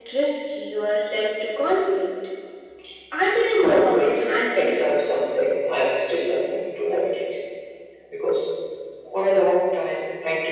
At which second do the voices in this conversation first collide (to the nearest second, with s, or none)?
4 s